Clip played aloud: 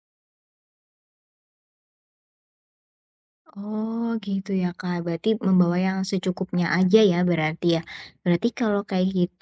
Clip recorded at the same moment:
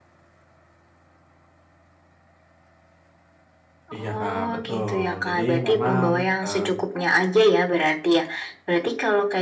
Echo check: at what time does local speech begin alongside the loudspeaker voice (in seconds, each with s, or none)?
3.9 s